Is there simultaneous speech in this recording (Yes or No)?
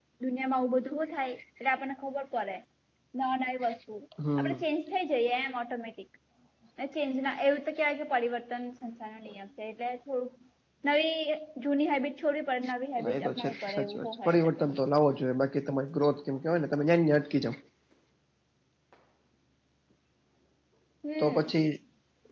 Yes